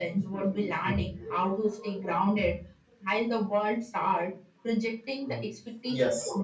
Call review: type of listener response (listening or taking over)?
taking over